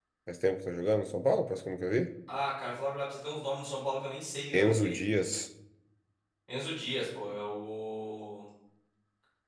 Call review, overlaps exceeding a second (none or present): none